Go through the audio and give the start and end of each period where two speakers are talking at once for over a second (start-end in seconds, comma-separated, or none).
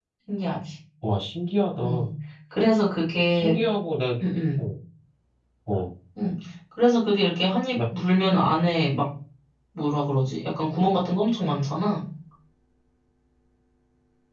none